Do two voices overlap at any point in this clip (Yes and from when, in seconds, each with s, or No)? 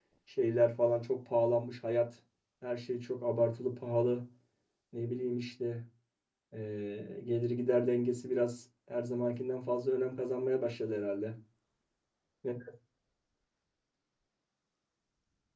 No